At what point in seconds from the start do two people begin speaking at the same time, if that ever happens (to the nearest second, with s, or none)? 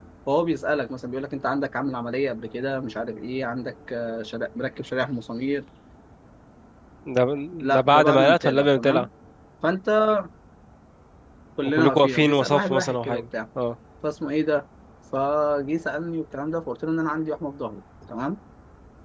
8 s